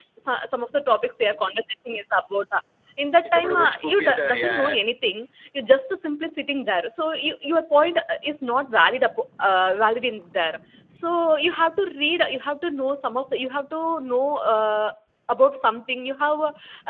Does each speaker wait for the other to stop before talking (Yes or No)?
No